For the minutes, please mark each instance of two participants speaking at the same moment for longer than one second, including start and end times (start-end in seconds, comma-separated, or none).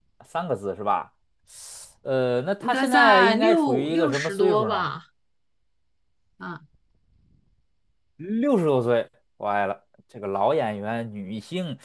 2.6-4.8